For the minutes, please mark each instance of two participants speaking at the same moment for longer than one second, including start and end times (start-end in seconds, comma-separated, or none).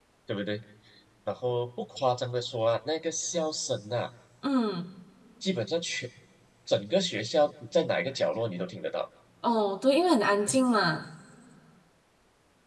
none